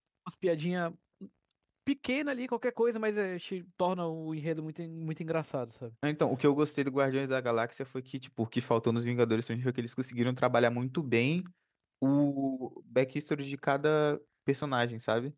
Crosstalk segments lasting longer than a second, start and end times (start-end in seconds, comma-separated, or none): none